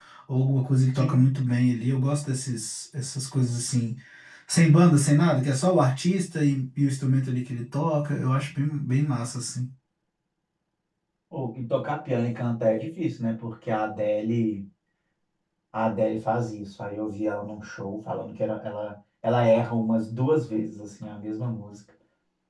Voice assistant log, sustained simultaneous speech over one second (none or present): none